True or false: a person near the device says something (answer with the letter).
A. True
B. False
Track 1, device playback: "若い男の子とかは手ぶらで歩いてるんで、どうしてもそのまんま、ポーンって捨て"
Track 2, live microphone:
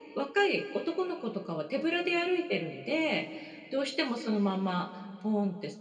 B